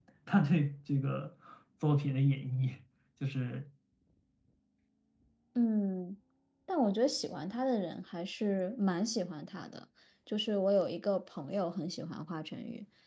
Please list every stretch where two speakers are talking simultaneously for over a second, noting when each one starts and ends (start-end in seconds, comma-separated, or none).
none